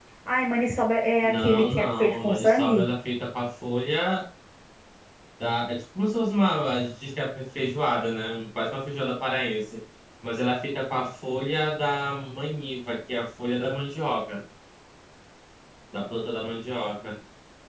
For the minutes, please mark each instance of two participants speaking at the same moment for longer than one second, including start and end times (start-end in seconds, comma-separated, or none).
1.2-2.9